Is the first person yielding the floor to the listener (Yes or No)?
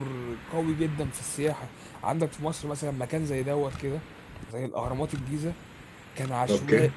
No